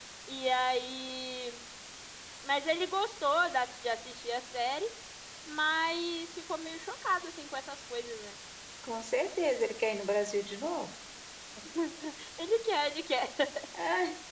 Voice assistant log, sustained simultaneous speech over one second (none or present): none